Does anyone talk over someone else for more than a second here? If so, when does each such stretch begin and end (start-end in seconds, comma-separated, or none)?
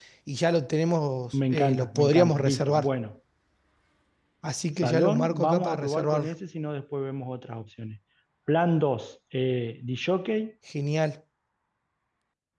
1.3-2.9, 4.8-6.3